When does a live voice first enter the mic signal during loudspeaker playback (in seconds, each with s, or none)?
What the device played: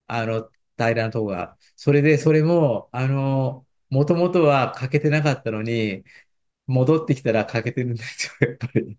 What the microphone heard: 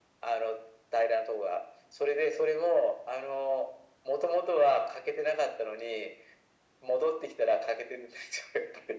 none